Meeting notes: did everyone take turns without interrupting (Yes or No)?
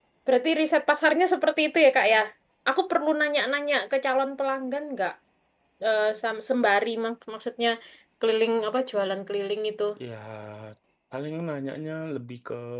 Yes